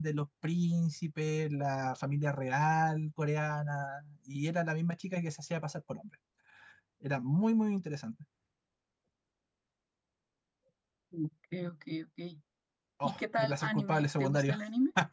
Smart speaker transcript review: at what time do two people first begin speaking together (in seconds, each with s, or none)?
13.0 s